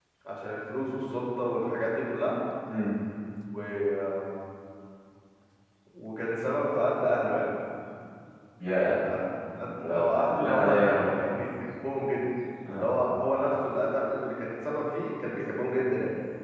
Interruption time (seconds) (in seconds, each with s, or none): 9.8 s